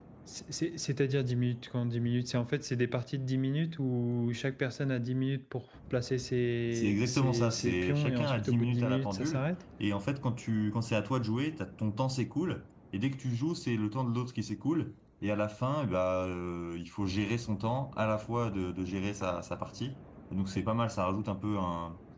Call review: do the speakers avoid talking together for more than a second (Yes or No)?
No